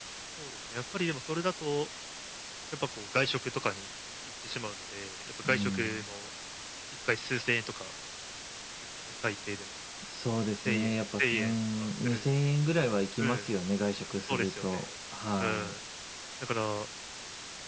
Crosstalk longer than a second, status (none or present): present